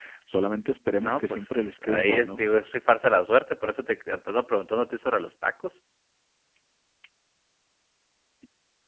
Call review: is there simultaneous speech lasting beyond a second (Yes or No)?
Yes